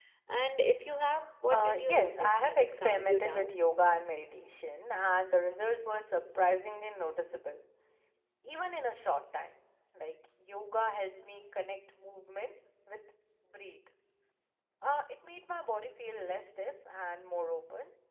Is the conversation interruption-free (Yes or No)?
No